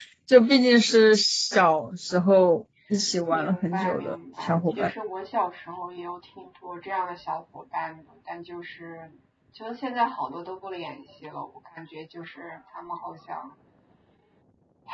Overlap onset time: 3.3 s

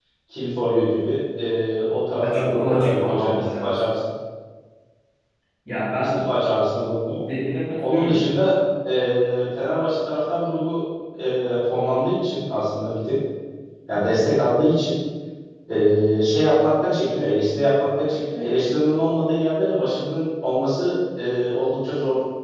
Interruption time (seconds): 2.2 s

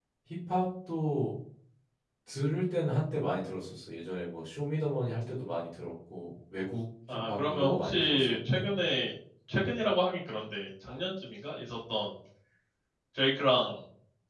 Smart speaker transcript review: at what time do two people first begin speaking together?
7.1 s

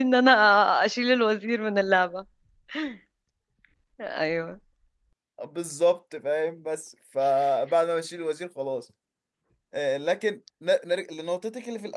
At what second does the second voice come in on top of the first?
none

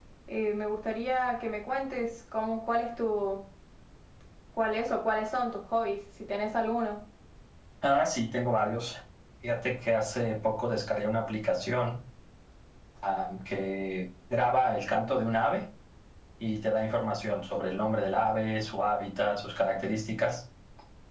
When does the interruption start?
none

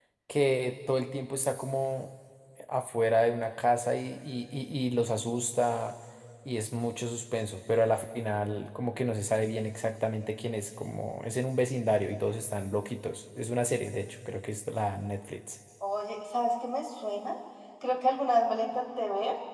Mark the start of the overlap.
none

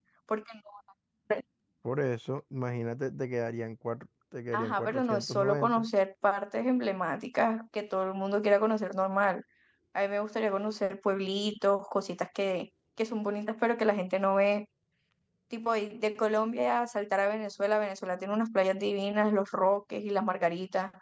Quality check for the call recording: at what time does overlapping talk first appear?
4.5 s

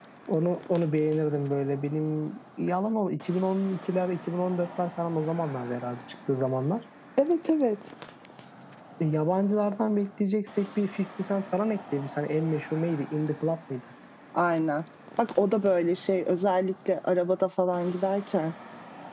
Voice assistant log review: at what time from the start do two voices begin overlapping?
none

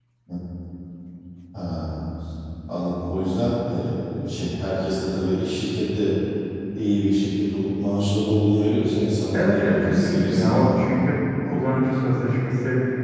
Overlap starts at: 9.3 s

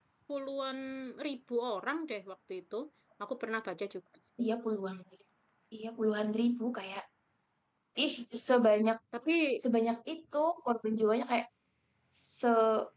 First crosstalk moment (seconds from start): none

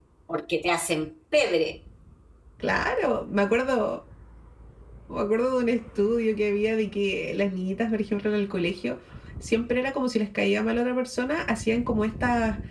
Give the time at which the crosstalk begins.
none

